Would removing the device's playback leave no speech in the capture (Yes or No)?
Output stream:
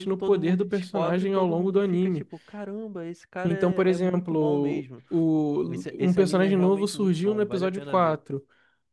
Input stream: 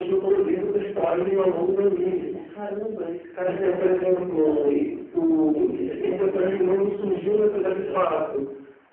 Yes